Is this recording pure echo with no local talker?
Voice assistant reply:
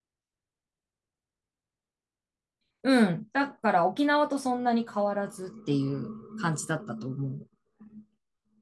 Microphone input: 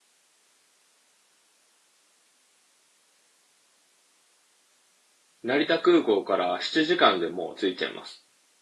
No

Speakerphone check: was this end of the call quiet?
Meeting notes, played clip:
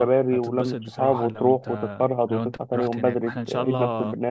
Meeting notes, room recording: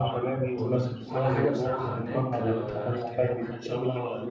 No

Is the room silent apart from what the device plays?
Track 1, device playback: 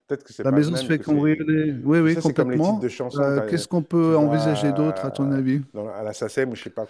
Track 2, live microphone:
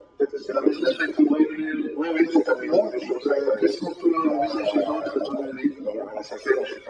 Yes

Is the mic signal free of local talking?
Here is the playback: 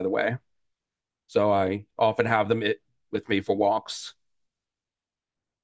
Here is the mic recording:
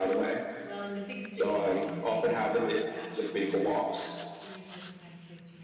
No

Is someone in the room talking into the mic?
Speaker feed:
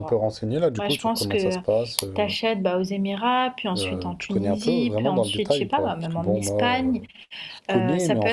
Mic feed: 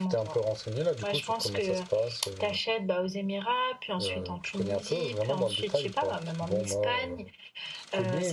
No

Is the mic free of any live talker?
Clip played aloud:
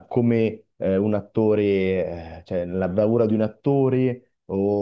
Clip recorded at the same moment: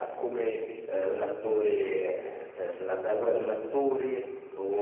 Yes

